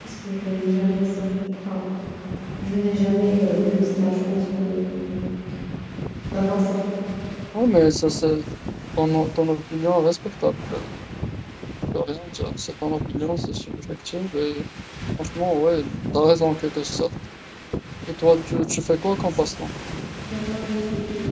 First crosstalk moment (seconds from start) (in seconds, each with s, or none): none